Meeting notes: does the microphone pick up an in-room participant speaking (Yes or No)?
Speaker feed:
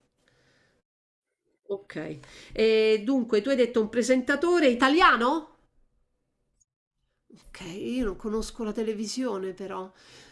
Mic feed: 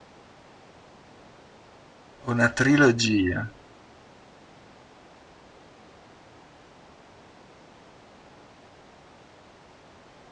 Yes